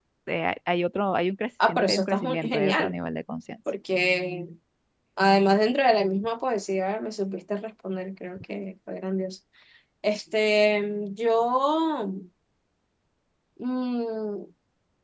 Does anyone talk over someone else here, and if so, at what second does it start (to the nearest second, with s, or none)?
2 s